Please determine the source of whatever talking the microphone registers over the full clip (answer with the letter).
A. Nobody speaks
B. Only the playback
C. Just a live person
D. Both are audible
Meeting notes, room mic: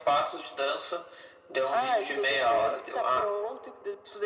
B